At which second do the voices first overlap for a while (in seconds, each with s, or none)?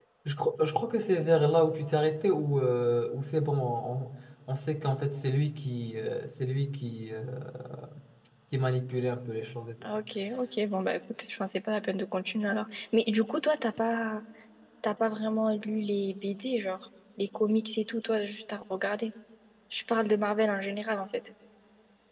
none